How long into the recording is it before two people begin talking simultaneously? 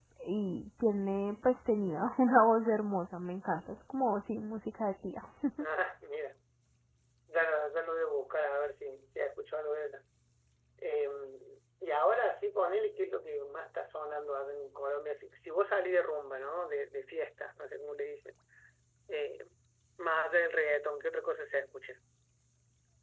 none

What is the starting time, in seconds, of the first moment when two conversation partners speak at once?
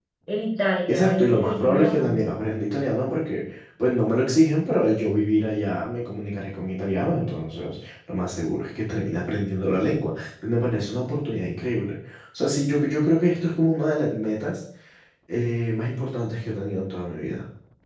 0.9 s

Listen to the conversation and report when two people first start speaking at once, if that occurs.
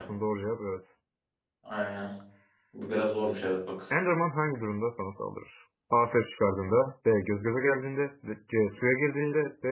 none

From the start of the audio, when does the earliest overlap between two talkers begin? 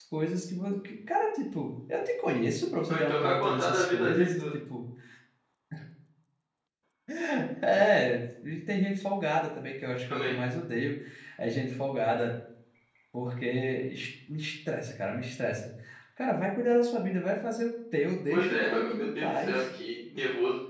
2.9 s

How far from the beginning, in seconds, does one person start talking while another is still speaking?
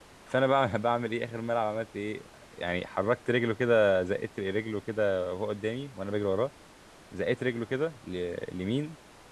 none

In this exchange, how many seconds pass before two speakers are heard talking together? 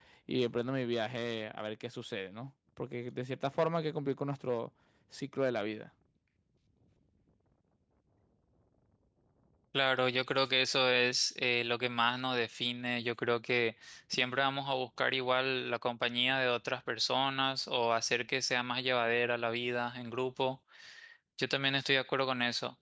none

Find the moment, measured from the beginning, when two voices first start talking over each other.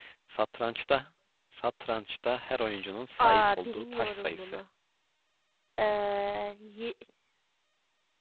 3.2 s

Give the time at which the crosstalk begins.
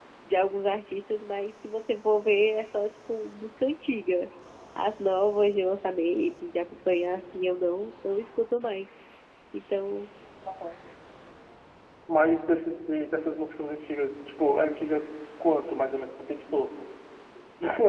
none

